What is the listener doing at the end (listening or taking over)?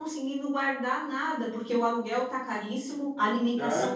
taking over